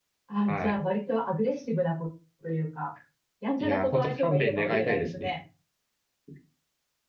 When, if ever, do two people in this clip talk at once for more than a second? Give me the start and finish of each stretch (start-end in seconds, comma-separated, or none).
3.6-5.4